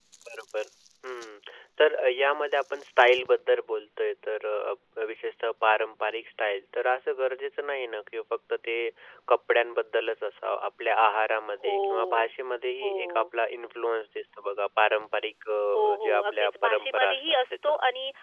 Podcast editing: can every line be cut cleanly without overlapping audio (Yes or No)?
No